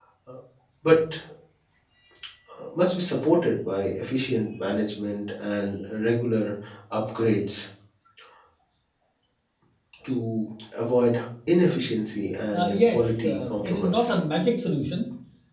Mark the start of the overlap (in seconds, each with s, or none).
12.5 s